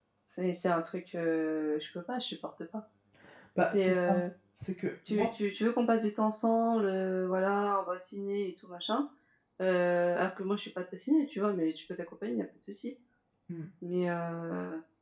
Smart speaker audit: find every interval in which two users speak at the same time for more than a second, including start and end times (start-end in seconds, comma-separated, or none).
none